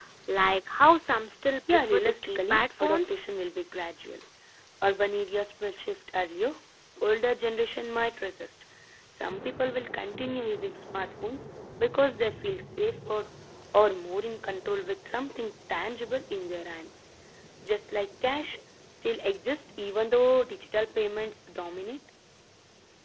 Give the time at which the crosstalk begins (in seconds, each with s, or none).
1.7 s